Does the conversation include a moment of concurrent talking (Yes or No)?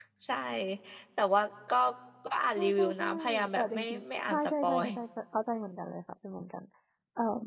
Yes